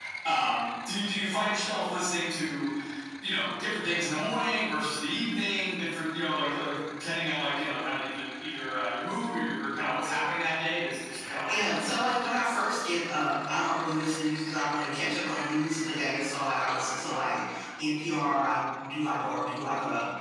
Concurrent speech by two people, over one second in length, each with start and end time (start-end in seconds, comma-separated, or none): 11.5-12.7